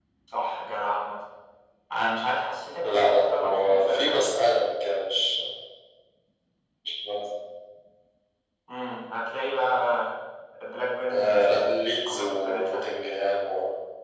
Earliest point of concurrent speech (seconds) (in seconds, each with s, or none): 2.8 s